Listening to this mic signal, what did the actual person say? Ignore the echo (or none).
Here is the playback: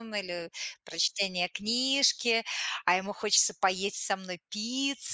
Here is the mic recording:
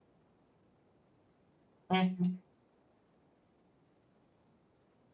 Мгм.